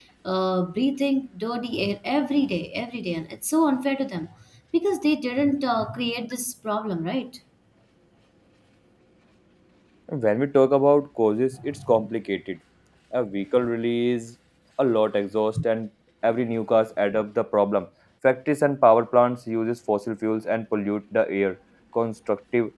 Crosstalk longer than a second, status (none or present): none